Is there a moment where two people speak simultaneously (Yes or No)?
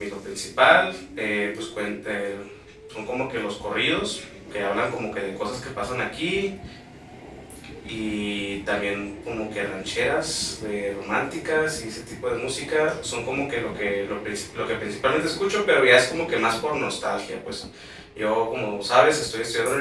No